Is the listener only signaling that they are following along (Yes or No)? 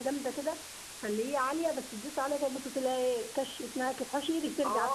No